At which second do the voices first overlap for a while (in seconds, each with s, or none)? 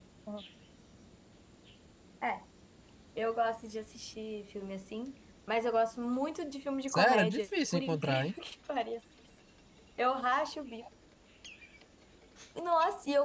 6.9 s